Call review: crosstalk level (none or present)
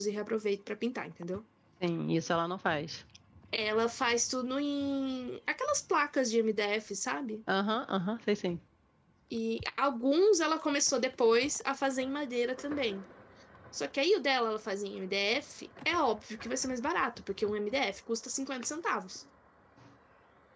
none